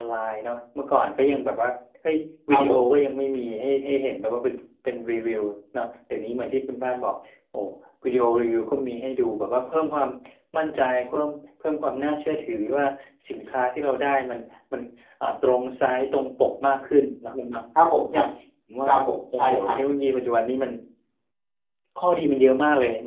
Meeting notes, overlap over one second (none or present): none